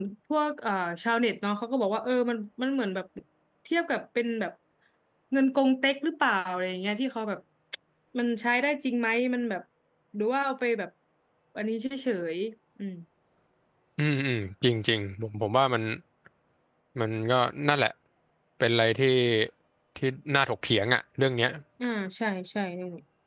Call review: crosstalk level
none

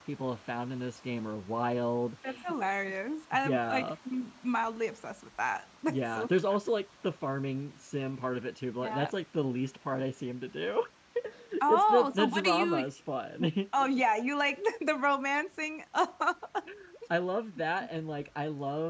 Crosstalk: present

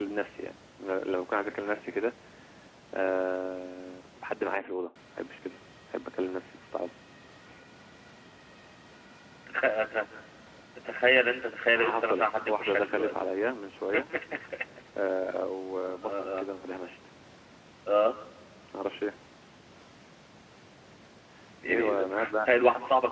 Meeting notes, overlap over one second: present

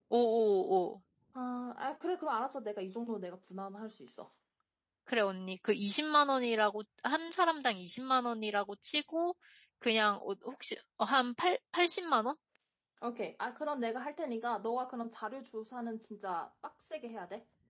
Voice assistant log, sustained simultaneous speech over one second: none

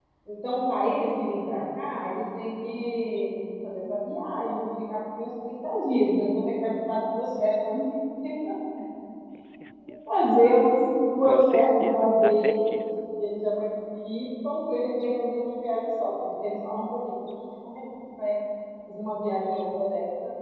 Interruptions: present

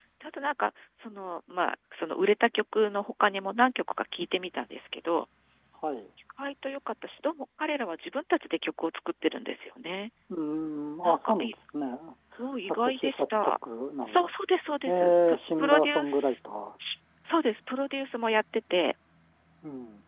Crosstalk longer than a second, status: present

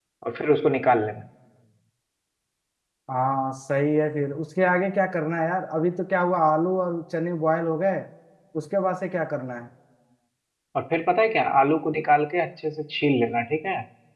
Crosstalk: none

